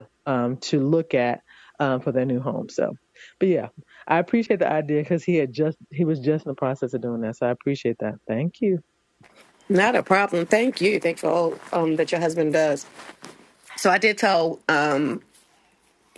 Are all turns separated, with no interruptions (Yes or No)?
Yes